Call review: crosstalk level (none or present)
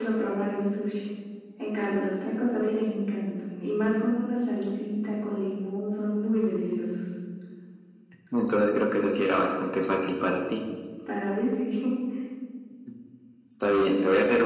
none